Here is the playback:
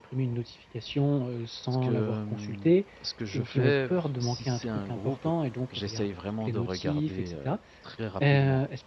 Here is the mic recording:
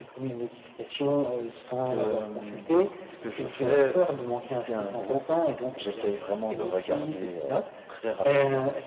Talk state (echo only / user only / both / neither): echo only